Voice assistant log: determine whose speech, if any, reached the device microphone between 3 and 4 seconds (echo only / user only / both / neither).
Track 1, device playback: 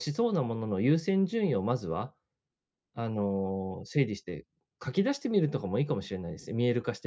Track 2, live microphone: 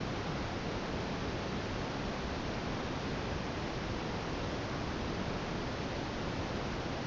neither